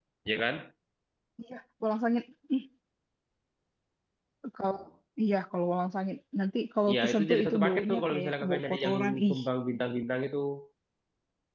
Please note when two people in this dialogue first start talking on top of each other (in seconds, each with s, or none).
6.9 s